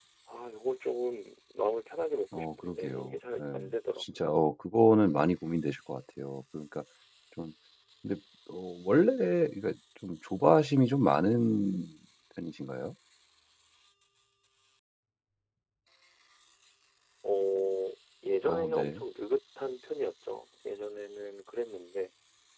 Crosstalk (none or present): present